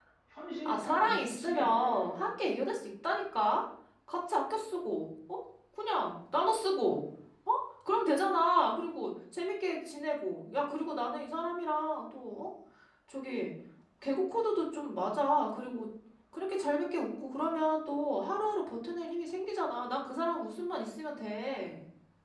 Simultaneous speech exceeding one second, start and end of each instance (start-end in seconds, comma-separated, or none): 0.6-2.1